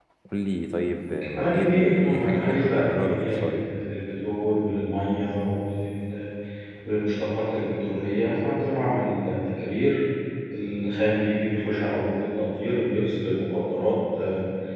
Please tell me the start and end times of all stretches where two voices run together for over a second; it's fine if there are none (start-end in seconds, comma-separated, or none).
1.4-3.7